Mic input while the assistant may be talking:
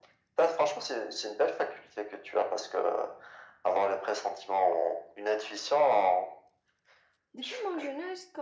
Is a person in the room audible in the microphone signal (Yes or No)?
Yes